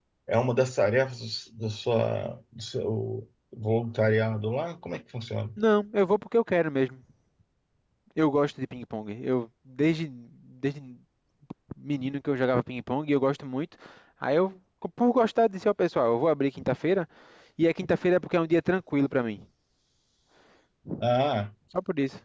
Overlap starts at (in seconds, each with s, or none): none